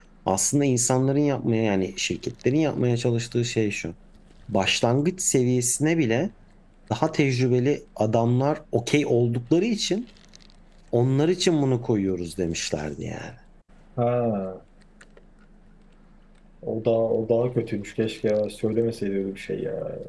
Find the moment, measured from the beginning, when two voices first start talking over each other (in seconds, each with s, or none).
none